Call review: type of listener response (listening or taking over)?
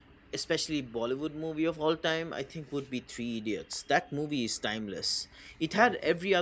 listening